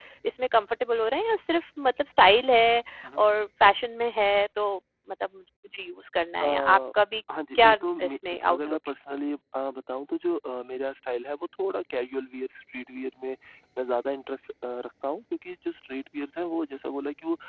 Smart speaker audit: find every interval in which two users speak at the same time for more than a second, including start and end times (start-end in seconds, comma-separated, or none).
7.5-8.8